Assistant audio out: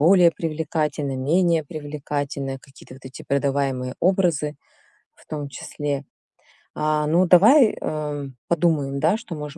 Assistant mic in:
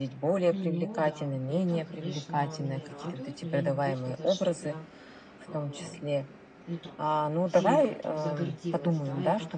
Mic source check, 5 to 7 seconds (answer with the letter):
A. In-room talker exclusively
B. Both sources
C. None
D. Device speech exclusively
B